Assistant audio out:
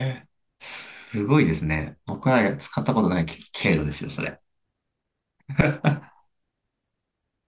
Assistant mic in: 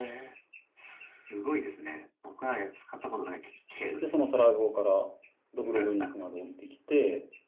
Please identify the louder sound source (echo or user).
user